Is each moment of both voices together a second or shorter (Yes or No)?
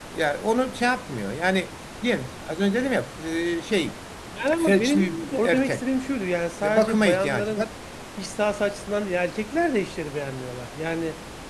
No